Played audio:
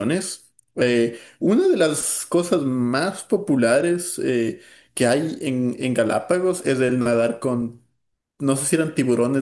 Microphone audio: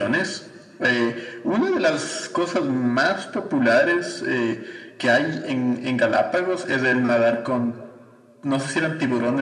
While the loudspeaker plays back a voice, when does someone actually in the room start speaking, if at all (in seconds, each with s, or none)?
none